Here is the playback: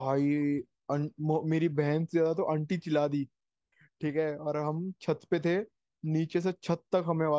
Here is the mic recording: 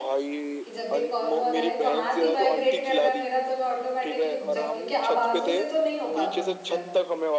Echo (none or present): present